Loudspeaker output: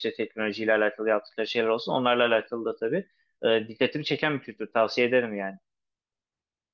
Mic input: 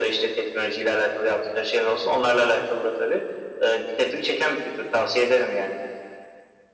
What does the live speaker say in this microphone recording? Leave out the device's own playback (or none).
none